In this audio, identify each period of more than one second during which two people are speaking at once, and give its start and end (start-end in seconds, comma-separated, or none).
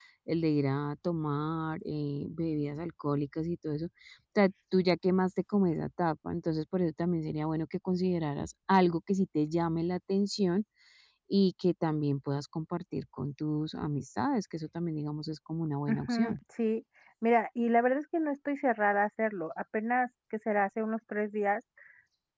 none